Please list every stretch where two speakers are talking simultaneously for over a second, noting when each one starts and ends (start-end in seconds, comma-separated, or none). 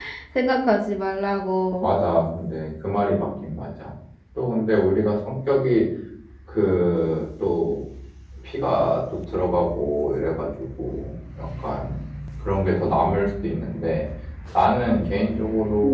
none